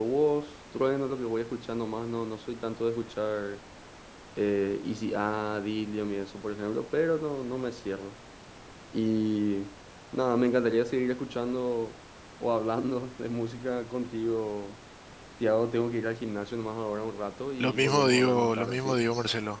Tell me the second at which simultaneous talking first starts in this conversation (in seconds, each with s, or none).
17.6 s